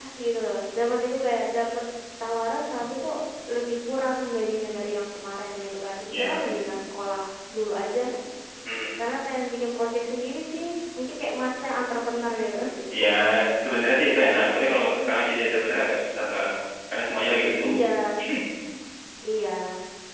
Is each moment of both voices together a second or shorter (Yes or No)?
Yes